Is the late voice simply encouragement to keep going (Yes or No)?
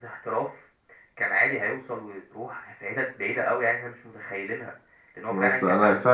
No